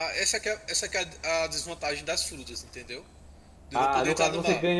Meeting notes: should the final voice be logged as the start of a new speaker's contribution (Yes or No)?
Yes